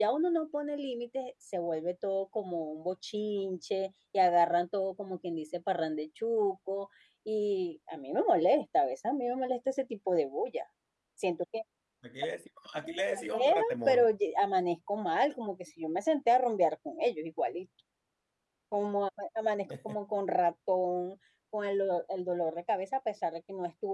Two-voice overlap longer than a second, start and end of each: 12.8-14.1

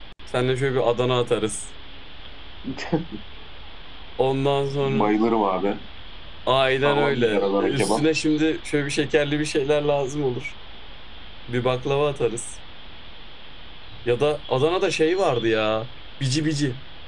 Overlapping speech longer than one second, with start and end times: 6.8-8.1

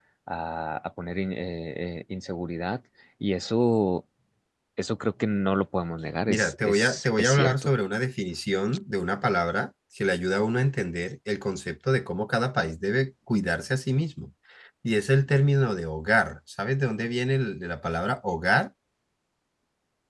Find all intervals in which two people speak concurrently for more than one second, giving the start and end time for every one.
6.3-7.7

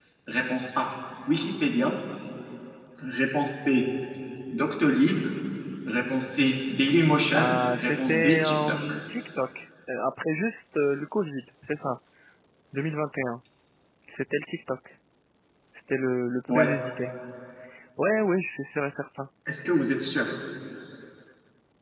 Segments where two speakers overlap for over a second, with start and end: 7.3-8.9

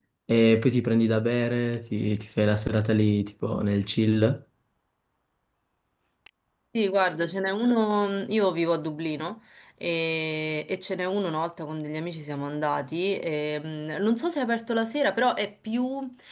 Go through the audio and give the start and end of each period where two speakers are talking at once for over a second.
none

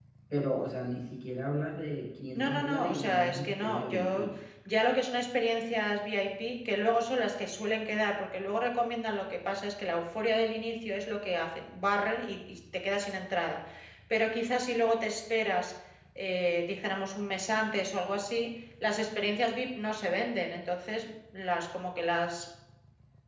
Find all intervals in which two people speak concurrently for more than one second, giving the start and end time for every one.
2.4-4.3

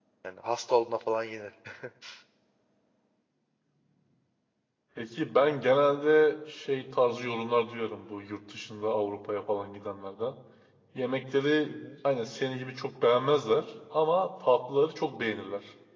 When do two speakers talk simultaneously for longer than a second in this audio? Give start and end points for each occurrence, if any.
none

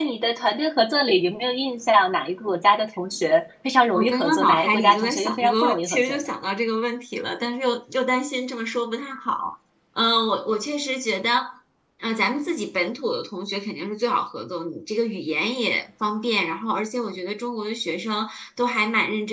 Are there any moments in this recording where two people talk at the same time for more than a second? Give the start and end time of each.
4.0-6.2

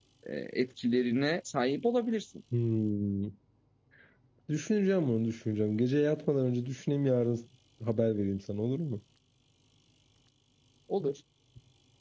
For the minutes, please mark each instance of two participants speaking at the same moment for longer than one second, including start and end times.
none

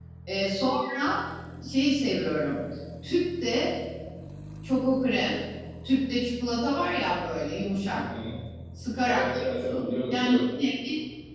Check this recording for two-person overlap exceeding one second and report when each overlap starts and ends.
9.1-10.4

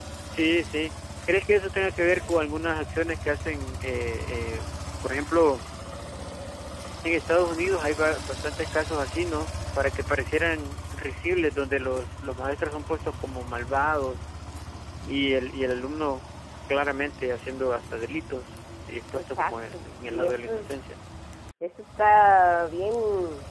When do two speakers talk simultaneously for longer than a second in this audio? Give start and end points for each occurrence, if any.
19.1-20.7

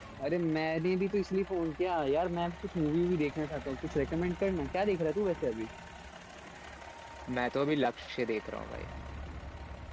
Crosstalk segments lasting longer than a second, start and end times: none

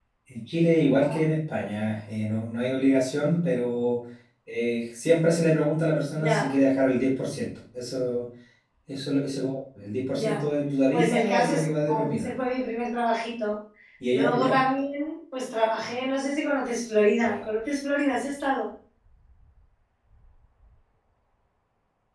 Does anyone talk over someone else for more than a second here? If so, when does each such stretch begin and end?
10.9-12.3

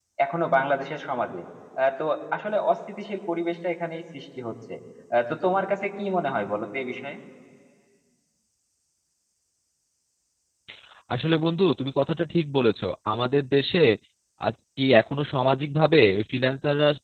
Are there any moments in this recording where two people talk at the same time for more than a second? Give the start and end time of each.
none

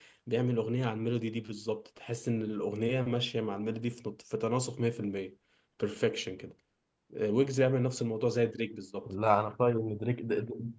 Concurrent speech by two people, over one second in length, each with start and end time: none

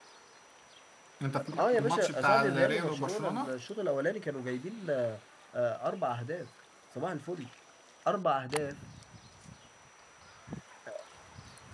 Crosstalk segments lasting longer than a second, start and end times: 1.6-3.5

